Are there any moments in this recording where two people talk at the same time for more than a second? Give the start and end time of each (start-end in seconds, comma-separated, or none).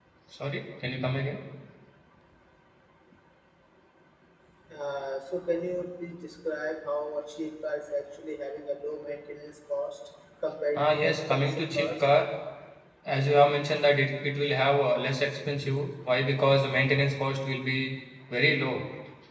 10.8-12.0